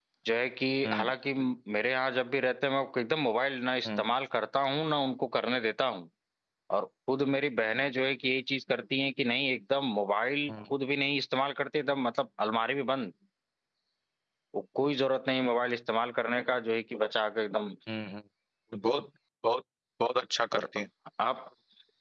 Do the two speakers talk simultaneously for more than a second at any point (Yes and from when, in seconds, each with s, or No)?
No